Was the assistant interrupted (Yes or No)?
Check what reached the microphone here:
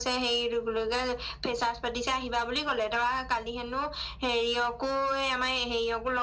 No